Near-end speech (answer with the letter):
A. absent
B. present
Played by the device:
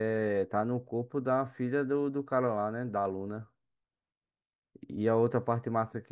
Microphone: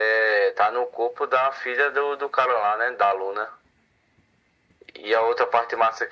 A